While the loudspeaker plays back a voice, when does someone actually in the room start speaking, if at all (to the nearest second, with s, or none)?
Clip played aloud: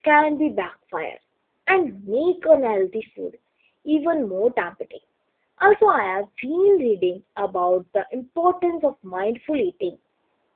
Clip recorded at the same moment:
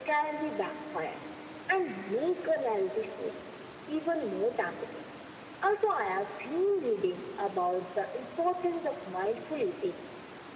none